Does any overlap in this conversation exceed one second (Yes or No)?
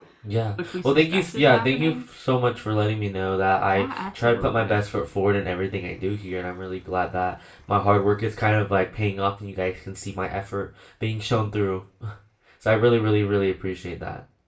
Yes